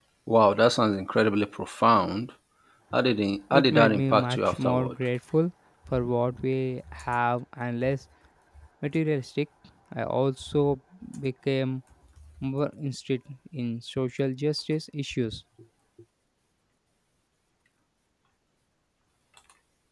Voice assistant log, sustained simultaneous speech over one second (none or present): present